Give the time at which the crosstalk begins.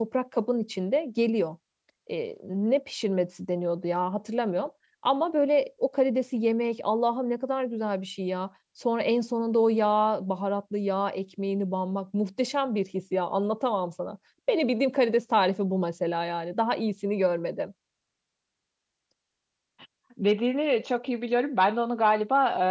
none

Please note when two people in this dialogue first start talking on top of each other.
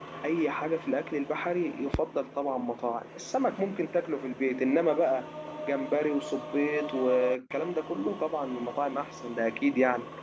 none

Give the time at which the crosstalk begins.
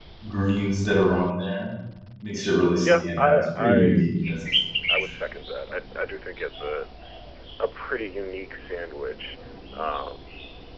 2.8 s

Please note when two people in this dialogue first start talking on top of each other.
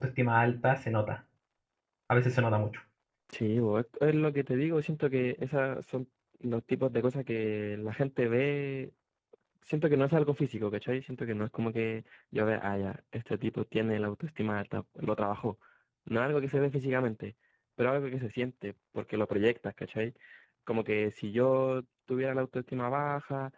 none

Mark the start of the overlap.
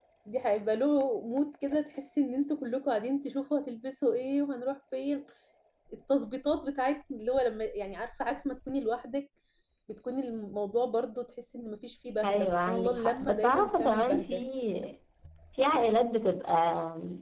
12.2 s

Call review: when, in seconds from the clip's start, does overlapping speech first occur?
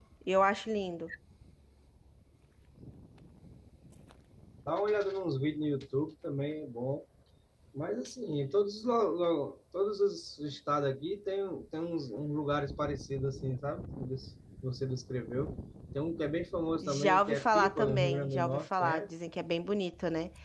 16.8 s

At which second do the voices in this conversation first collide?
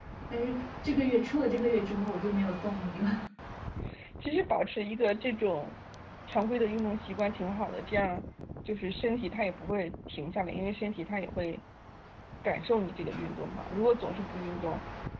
none

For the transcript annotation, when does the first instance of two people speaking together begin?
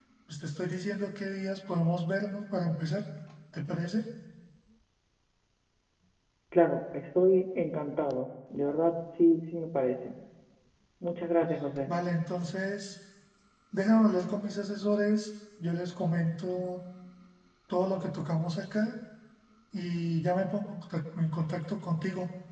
none

